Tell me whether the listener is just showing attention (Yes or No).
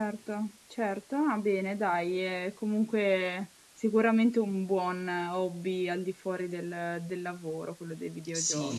No